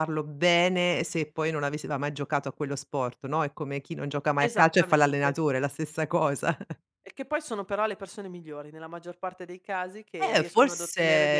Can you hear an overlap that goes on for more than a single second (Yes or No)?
Yes